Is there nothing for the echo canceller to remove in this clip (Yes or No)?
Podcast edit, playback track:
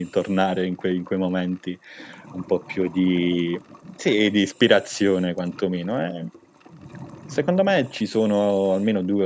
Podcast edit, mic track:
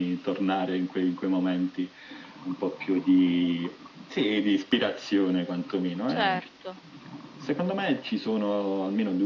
No